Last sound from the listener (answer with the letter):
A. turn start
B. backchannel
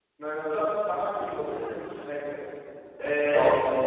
B